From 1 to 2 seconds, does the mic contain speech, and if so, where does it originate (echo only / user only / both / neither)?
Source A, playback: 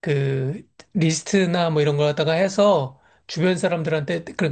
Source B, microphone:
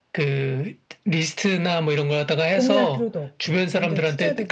echo only